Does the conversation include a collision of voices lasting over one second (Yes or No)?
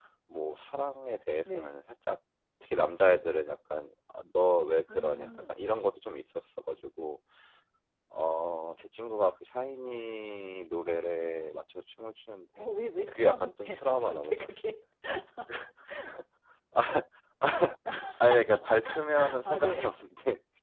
Yes